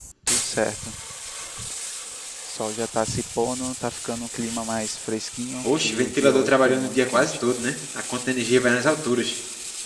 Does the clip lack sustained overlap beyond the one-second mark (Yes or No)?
No